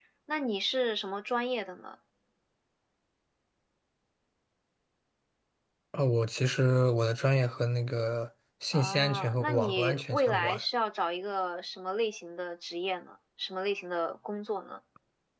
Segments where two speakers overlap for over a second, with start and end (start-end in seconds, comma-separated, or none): 8.7-10.6